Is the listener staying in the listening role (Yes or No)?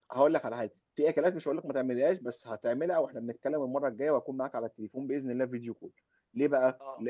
Yes